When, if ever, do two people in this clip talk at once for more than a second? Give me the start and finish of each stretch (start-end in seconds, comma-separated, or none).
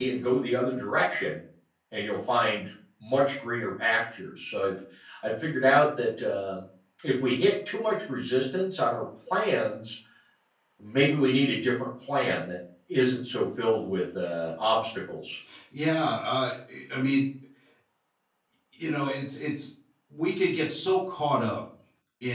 none